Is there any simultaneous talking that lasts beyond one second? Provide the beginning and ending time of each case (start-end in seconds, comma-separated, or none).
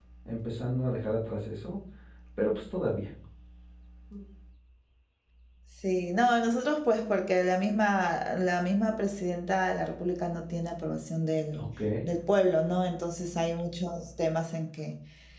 none